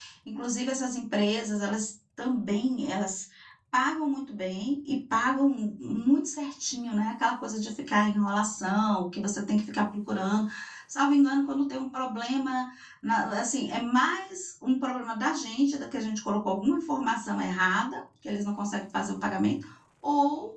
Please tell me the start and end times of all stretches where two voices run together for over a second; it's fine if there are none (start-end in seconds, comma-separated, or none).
none